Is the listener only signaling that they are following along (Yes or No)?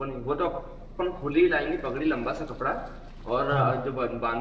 Yes